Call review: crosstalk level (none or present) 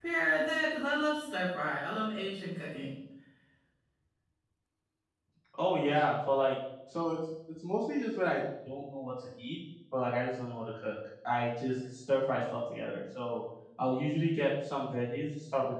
none